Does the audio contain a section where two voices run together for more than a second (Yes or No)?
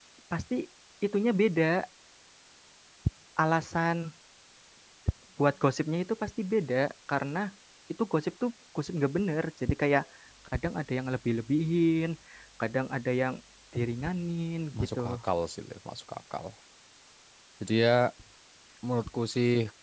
No